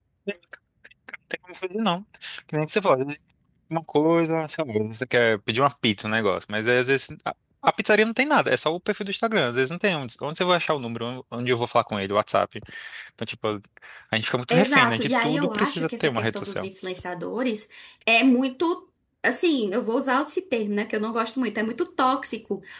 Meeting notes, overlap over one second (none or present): present